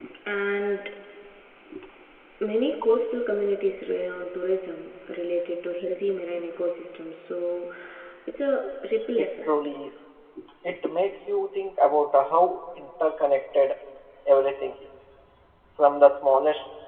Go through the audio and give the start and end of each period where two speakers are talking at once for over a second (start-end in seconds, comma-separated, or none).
none